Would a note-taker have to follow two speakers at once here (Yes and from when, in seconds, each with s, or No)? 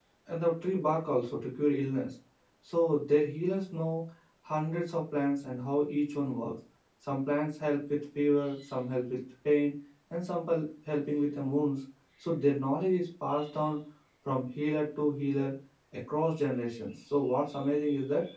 No